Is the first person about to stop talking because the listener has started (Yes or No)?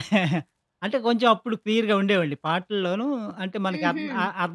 No